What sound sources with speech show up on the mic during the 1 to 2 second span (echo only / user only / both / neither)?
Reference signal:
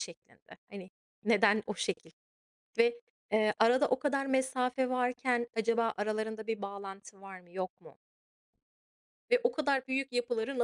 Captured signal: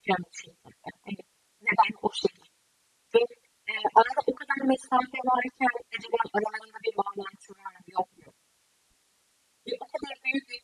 echo only